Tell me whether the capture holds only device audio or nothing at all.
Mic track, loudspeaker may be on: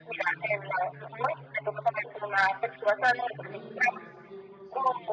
No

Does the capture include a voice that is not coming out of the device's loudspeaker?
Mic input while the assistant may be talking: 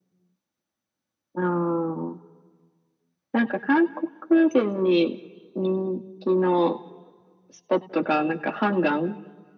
No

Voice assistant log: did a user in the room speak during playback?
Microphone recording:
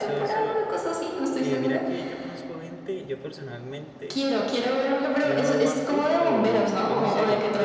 Yes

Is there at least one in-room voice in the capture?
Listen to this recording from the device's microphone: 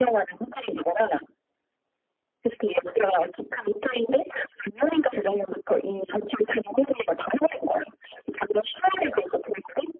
No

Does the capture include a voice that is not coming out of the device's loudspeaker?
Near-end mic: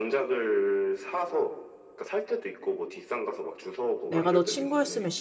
Yes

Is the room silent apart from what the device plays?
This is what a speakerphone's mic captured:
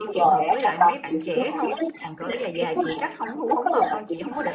No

